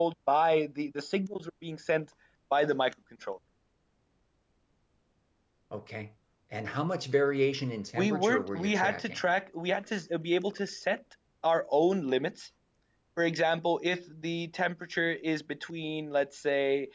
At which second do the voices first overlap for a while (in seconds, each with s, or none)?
8.0 s